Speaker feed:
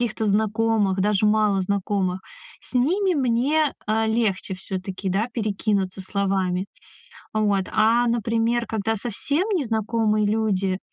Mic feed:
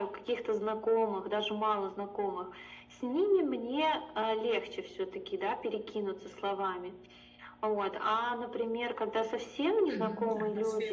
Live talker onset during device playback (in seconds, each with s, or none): 9.9 s